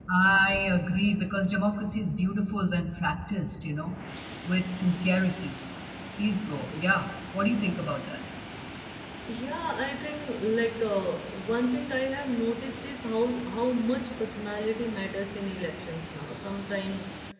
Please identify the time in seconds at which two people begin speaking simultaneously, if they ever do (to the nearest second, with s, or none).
none